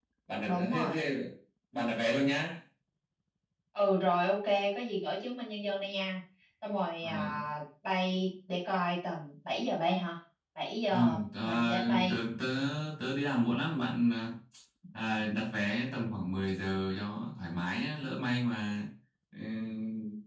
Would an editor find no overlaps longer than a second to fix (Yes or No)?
No